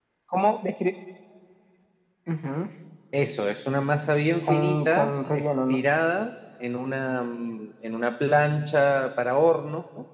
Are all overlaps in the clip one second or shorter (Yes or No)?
No